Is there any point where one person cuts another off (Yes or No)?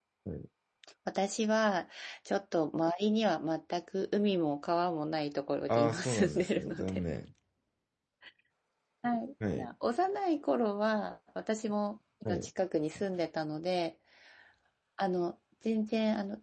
Yes